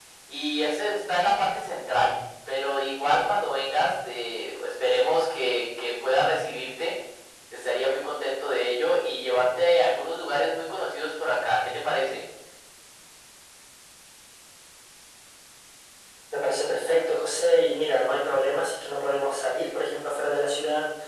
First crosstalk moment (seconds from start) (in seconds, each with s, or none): none